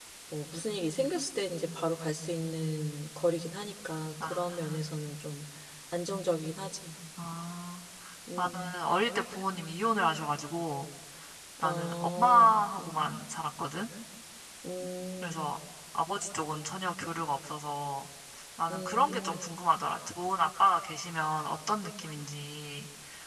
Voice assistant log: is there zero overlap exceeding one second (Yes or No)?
No